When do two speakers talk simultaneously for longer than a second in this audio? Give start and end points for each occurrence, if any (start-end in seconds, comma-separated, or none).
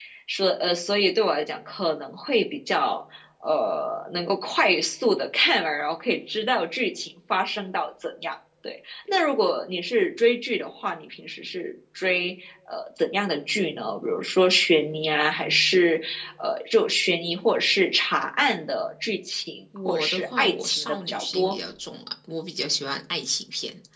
19.9-21.6